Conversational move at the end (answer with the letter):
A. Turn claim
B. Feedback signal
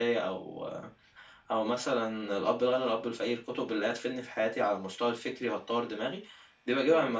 B